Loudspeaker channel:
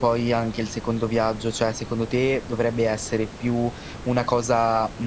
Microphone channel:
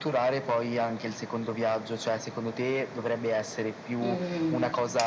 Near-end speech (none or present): present